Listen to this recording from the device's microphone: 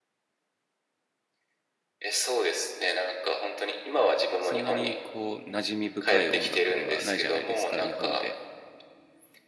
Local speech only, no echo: そんなにこう、馴染み深い音楽ではないじゃないですか、日本で。

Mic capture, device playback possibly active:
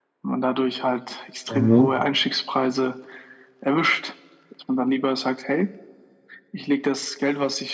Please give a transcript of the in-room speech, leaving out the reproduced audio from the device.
Mhm.

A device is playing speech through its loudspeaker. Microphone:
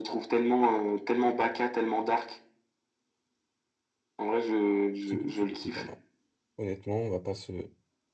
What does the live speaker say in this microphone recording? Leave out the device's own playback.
Tiplouf, il était pas mal. Honnêtement, on va pas se...

